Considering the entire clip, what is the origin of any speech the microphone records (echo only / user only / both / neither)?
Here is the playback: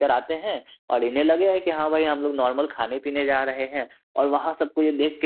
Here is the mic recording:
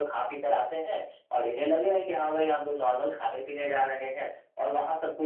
echo only